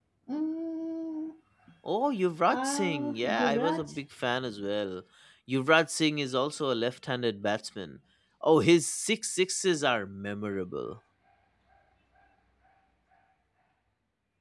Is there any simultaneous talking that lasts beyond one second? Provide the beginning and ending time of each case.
2.5-3.9

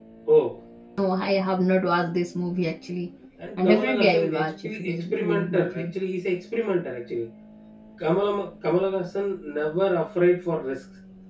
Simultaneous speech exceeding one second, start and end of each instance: 3.6-5.9

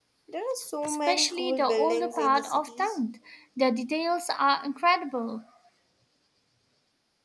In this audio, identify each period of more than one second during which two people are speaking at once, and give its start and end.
0.8-3.0

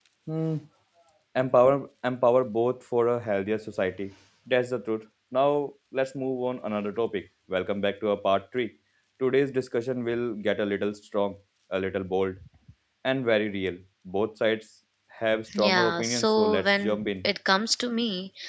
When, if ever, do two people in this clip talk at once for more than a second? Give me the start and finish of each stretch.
15.6-17.3

